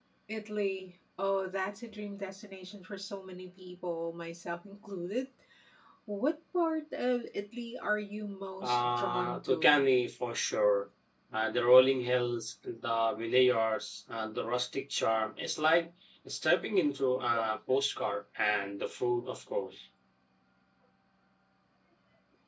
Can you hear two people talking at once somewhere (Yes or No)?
Yes